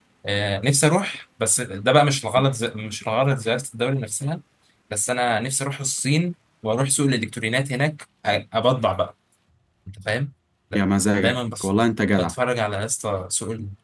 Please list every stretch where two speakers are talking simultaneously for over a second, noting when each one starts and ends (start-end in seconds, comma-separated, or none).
none